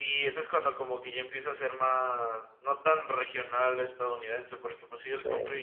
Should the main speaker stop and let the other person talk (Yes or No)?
No